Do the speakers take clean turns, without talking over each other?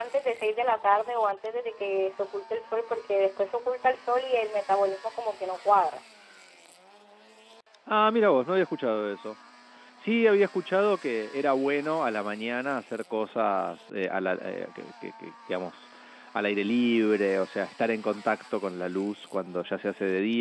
Yes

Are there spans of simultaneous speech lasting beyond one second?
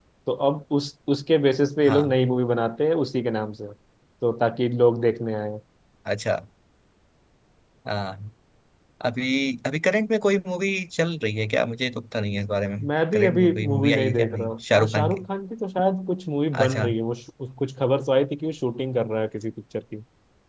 Yes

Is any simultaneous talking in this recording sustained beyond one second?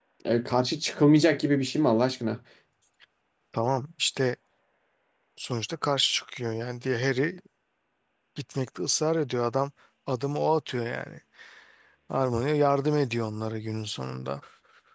No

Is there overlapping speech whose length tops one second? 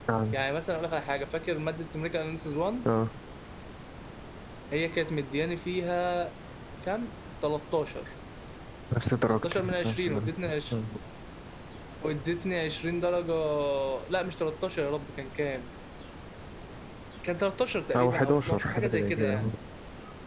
Yes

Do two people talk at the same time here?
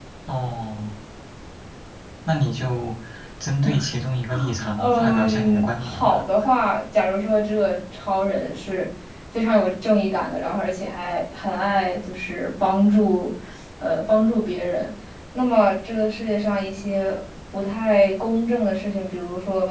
Yes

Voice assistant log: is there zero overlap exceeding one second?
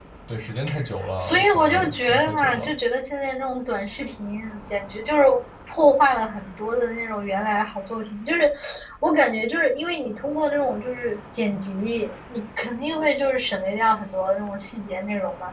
No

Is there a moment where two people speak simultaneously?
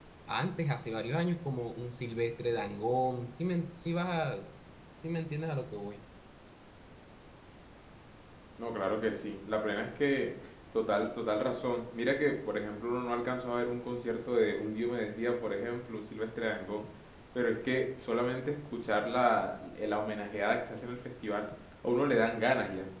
No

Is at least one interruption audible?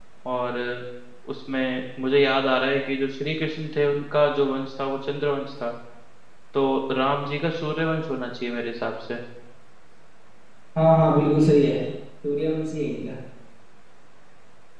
No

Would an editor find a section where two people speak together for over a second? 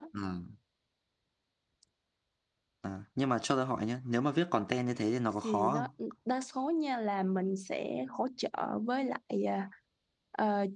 No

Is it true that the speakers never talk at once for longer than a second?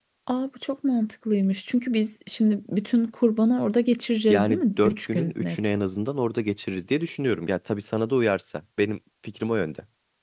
No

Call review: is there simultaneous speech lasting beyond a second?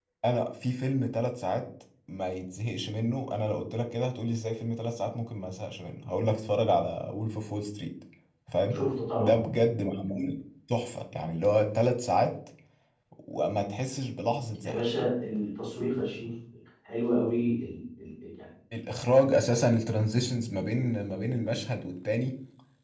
No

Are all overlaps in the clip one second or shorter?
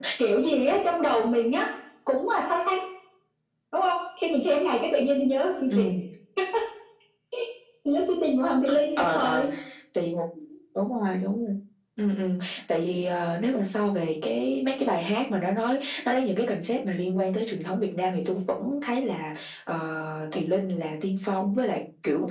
Yes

